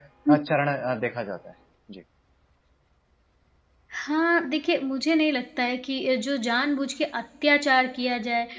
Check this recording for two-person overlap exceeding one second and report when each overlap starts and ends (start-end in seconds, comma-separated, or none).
none